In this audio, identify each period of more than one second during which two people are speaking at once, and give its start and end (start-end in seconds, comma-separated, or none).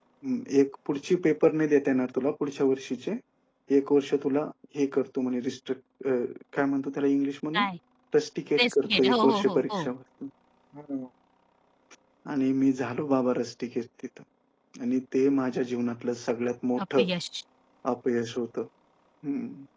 8.6-9.9